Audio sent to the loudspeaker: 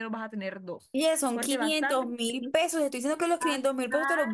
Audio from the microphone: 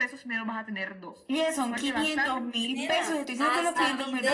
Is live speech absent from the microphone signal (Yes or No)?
No